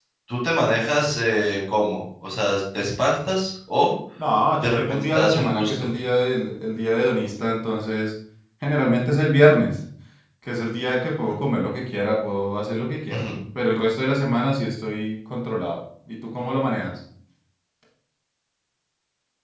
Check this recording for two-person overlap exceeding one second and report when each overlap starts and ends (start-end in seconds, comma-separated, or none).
4.6-5.9